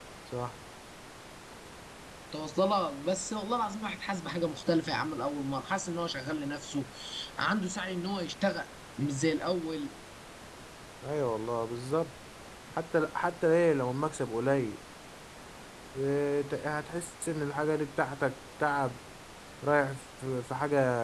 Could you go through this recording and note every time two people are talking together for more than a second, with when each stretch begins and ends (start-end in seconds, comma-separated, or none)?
none